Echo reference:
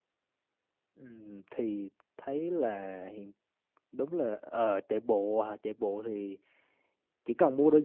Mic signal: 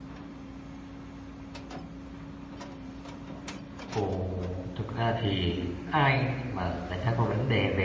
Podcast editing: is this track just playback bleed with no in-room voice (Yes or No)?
No